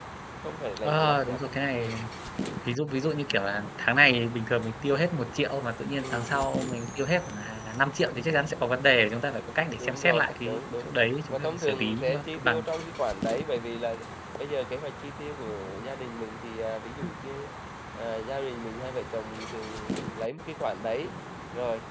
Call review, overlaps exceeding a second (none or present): present